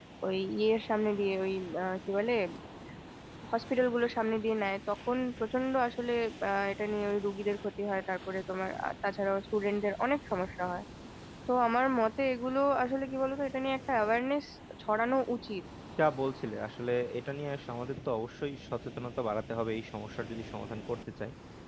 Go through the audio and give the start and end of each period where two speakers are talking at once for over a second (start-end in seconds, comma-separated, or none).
none